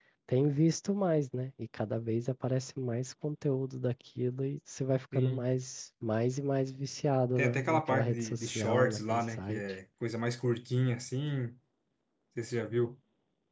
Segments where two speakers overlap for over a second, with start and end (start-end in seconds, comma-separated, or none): 7.4-9.6